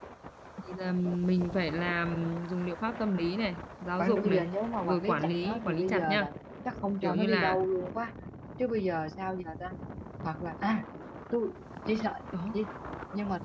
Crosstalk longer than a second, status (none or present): present